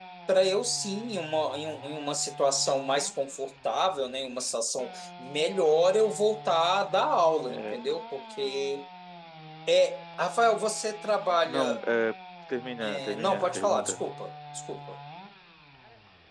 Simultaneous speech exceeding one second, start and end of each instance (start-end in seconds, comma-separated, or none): 12.8-14.0